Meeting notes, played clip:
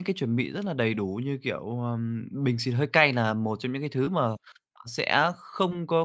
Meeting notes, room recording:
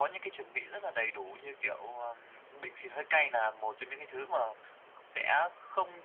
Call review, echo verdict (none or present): present